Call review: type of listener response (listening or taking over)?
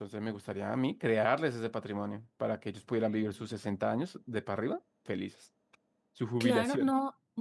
taking over